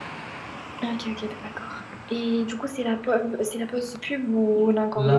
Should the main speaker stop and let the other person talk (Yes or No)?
Yes